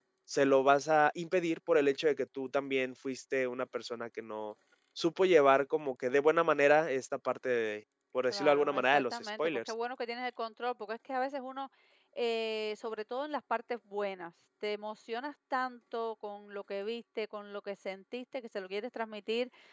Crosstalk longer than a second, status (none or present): present